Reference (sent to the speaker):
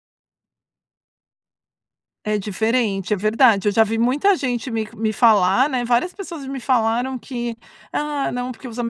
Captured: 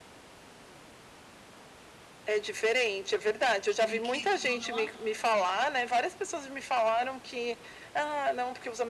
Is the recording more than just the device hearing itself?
Yes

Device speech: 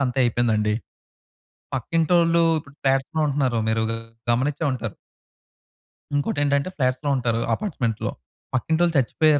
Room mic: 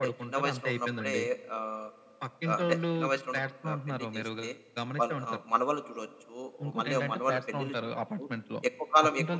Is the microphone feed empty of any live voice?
No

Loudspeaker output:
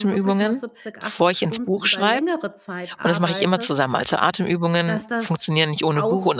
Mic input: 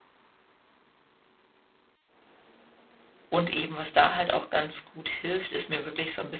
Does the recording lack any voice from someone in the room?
No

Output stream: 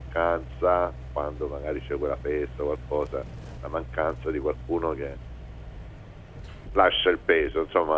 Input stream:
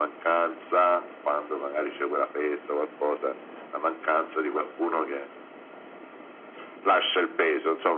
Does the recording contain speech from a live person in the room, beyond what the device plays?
No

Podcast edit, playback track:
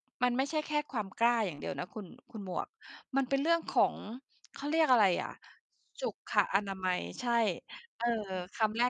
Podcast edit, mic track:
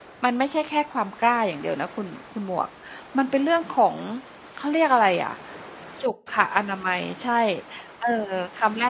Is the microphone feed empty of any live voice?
Yes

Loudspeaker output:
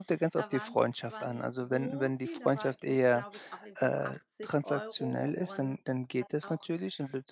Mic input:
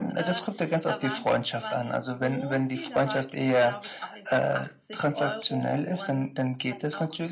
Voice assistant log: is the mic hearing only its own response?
Yes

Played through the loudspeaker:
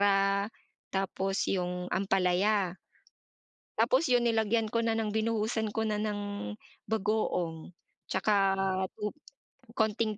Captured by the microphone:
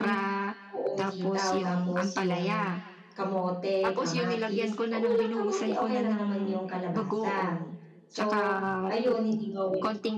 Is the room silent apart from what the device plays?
No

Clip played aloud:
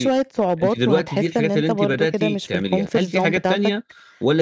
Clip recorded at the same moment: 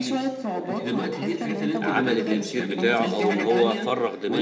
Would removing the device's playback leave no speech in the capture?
No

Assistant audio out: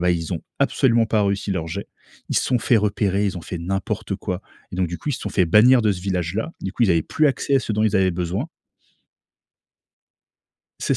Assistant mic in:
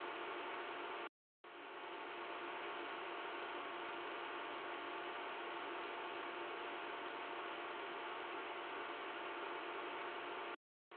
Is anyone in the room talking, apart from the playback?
No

